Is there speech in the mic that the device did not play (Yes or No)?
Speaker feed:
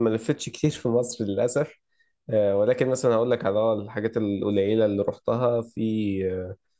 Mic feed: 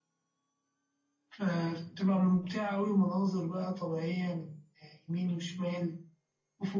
Yes